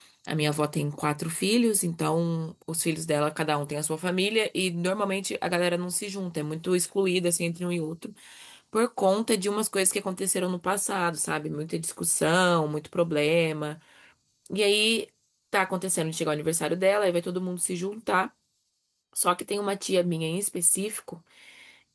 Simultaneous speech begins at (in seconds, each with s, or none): none